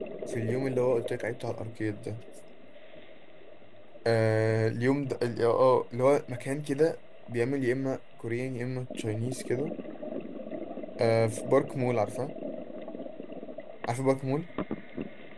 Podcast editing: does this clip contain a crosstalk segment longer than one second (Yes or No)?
No